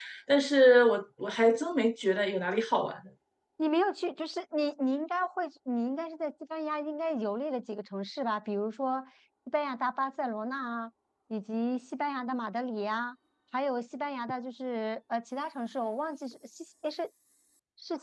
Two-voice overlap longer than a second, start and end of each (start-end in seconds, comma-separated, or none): none